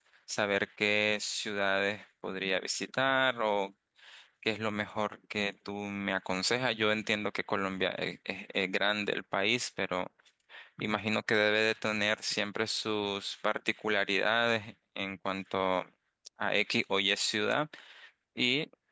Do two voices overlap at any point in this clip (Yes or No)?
No